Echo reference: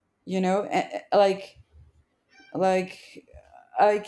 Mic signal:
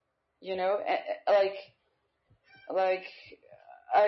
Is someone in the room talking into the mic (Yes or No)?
No